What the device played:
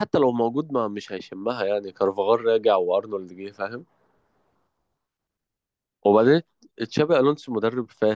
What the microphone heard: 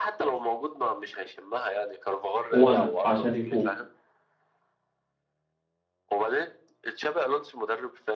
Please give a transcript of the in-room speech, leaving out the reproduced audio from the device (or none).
وانا عشان يفوق